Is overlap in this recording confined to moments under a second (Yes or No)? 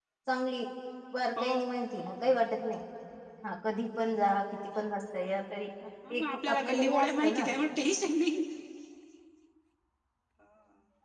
No